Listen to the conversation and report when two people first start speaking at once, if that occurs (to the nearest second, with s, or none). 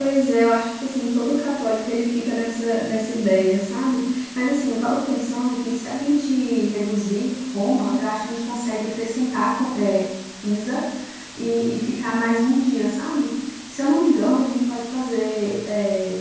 none